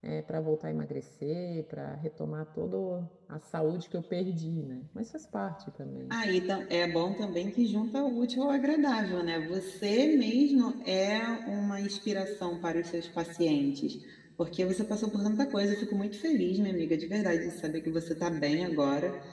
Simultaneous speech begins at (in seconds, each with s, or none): none